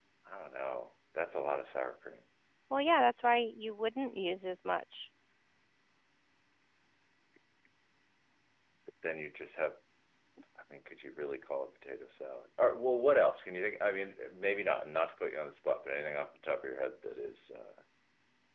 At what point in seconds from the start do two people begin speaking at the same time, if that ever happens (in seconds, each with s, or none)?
none